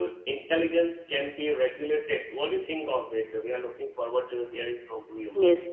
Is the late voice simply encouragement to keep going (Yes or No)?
No